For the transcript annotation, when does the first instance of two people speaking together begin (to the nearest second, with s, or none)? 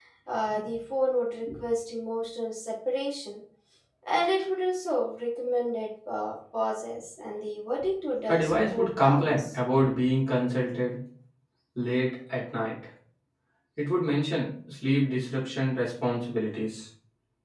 8 s